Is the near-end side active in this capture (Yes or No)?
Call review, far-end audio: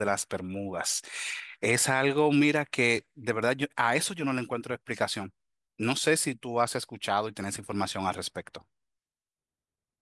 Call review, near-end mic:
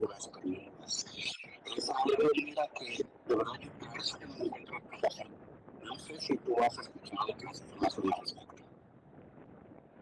No